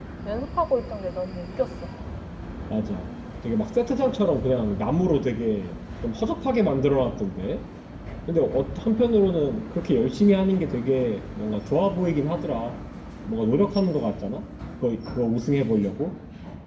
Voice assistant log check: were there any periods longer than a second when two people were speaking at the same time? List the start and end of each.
none

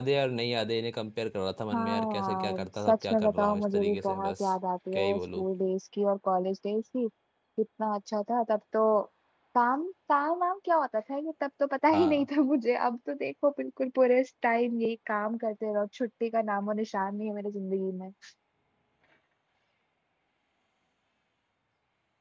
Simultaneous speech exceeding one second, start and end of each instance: 1.7-4.5

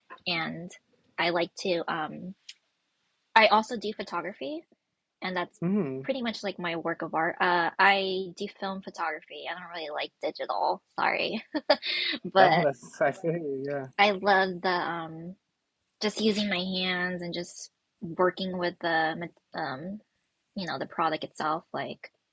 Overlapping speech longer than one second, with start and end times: none

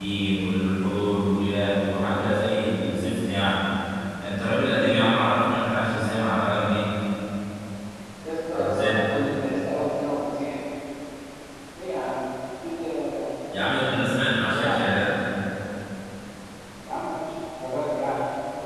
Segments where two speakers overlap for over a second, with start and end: 13.5-14.8

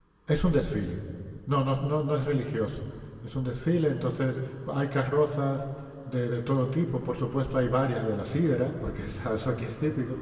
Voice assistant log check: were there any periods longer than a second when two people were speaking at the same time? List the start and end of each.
none

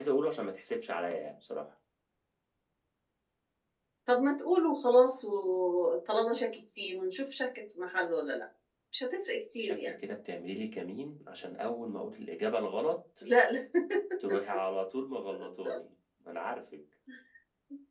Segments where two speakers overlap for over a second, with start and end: none

